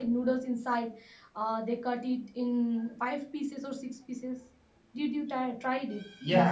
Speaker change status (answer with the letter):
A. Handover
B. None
A